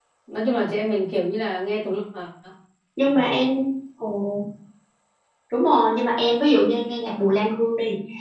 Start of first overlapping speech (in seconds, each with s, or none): none